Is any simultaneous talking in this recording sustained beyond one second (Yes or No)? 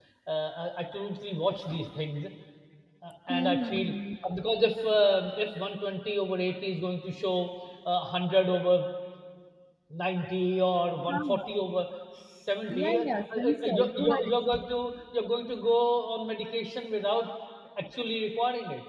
Yes